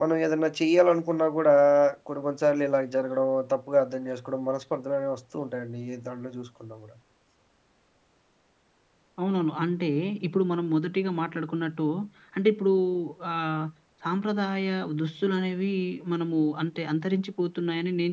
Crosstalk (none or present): none